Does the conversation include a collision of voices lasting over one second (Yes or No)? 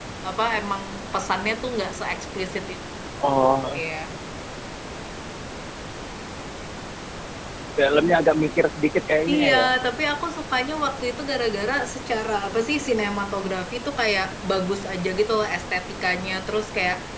No